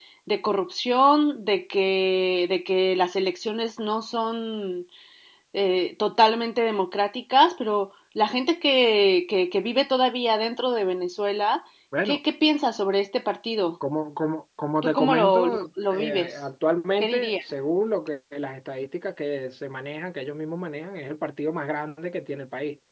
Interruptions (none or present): present